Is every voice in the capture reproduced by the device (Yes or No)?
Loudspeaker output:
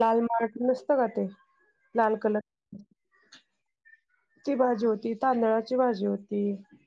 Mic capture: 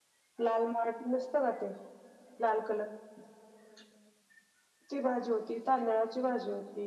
Yes